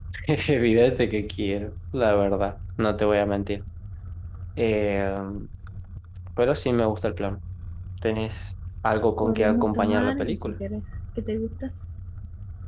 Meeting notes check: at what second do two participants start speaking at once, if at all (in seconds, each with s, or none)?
9.2 s